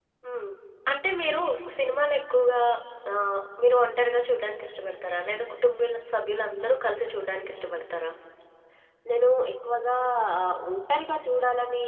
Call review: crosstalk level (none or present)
none